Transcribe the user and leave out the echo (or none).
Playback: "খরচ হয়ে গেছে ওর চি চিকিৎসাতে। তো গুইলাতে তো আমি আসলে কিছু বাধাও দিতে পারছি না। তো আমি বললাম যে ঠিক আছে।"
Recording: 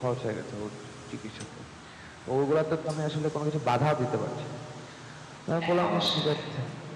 হ্যাঁ, অবশ্যই ভাই।